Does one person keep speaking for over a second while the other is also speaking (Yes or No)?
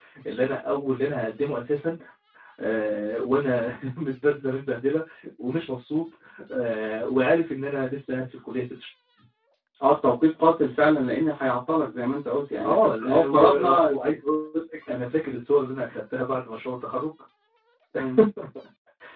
Yes